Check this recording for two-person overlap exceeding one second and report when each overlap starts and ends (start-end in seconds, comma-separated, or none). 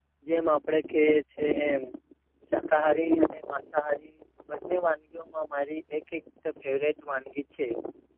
none